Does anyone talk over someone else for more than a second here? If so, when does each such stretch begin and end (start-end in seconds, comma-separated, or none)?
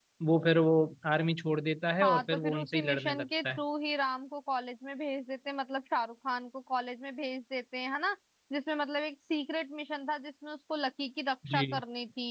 2.0-3.6